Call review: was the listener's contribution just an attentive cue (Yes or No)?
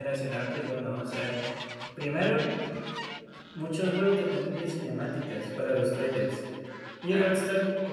Yes